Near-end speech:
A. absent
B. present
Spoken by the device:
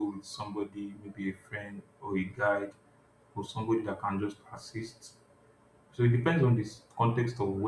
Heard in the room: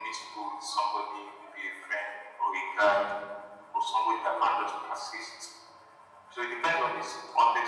A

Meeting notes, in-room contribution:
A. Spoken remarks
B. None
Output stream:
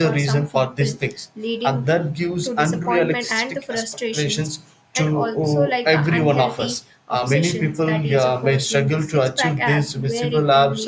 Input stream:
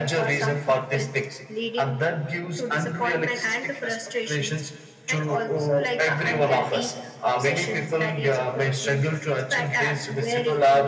B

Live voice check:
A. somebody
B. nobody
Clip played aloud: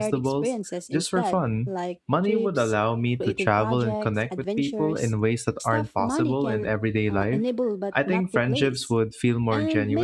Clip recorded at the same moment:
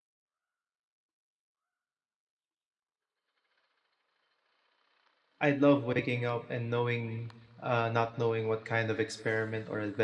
A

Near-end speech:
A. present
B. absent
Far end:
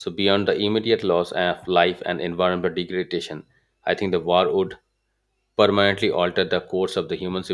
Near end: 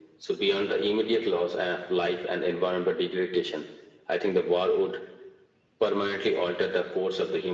B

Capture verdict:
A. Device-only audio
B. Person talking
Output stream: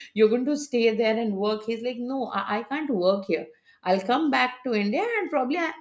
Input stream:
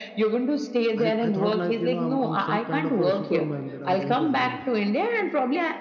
B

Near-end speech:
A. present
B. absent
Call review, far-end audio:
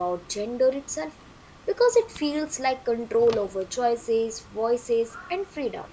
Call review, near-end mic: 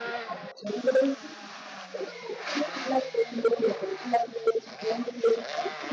B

